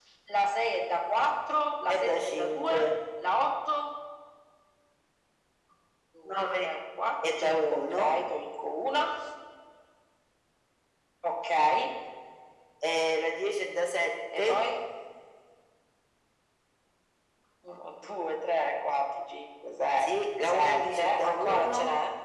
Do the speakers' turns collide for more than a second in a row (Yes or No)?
Yes